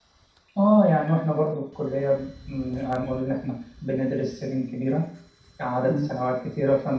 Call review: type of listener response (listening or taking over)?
listening